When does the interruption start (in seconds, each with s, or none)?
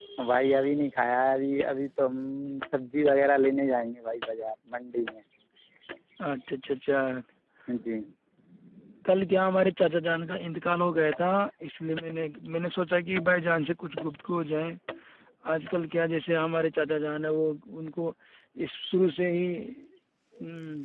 none